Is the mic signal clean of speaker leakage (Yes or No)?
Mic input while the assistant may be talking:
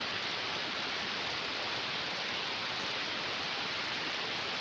Yes